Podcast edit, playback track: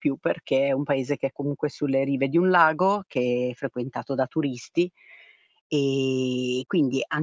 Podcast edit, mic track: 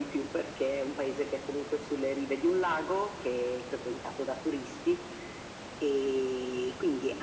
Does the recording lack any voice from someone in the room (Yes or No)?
Yes